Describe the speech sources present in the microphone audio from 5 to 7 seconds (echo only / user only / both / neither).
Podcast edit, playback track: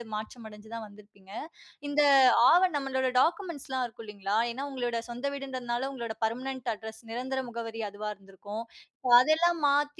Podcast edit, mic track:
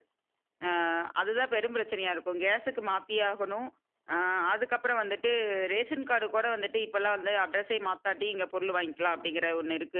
user only